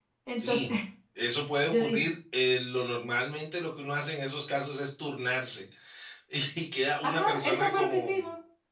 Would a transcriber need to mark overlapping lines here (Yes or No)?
Yes